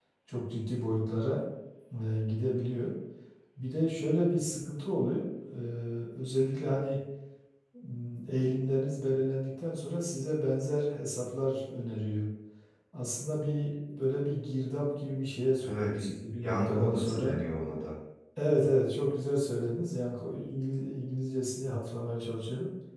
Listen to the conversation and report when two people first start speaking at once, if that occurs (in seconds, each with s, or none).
15.6 s